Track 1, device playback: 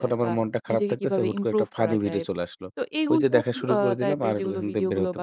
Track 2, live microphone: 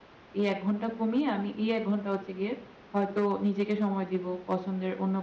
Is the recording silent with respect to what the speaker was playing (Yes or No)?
Yes